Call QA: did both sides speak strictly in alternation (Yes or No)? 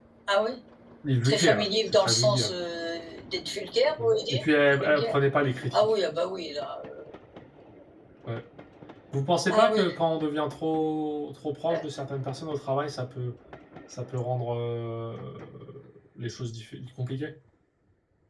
No